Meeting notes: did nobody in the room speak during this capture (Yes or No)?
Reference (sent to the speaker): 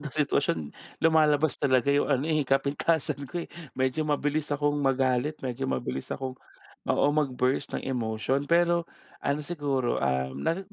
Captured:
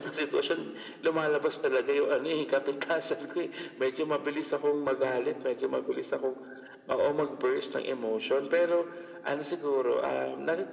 Yes